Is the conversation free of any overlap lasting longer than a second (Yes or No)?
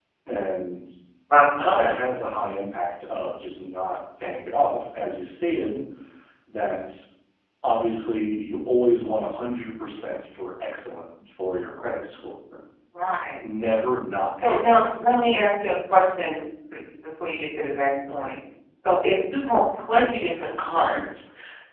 Yes